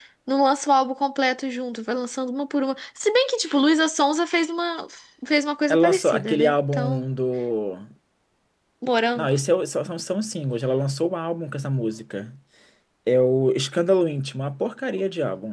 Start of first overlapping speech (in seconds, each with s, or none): 5.7 s